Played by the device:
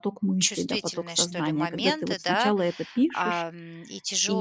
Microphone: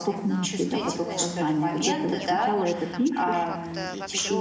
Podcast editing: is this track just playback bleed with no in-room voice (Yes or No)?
No